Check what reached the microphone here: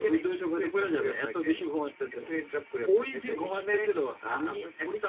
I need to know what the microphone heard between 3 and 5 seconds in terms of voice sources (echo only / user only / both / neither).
echo only